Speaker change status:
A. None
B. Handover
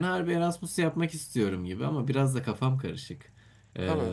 A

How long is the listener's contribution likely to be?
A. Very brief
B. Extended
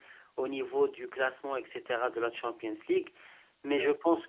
A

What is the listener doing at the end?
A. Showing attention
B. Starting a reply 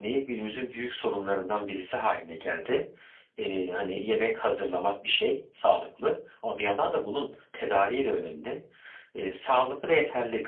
A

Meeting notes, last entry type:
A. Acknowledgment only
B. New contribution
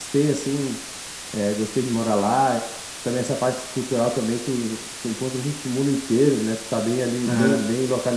A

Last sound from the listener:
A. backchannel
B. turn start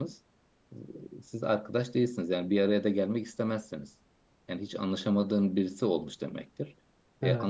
A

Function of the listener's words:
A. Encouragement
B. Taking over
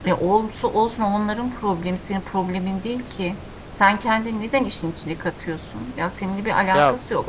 A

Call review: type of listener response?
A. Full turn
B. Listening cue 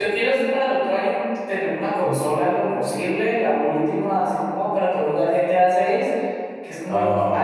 B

